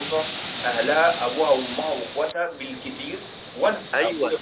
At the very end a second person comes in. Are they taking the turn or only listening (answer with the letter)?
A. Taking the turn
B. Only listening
A